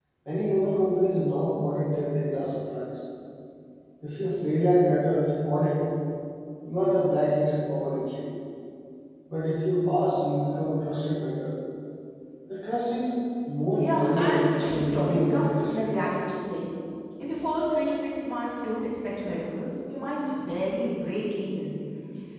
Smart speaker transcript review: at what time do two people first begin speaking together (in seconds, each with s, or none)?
13.8 s